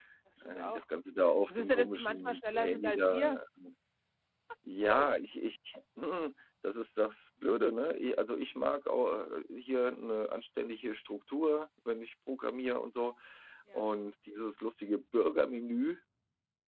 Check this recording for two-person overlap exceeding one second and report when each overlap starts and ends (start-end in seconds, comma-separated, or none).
1.5-3.2